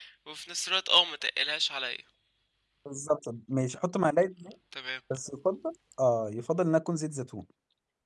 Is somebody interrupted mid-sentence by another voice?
No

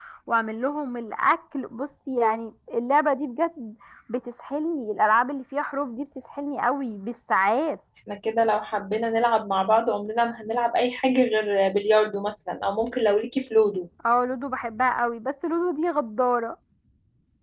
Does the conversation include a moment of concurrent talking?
No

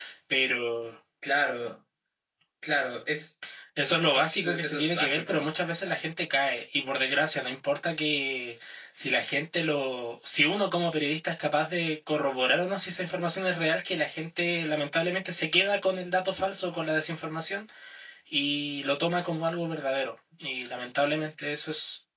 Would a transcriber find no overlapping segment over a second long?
No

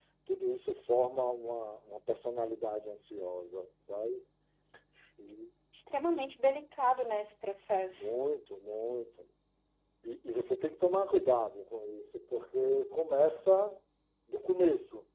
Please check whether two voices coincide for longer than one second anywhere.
No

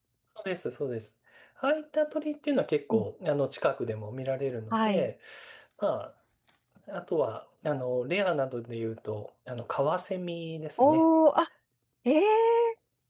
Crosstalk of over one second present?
No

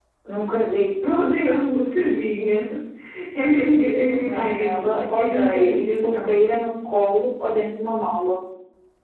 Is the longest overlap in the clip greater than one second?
Yes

